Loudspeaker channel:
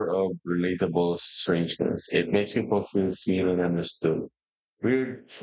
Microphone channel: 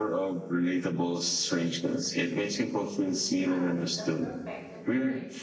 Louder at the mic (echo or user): echo